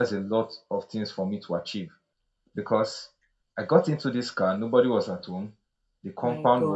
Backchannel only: Yes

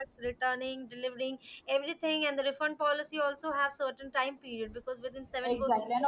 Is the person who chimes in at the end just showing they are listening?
No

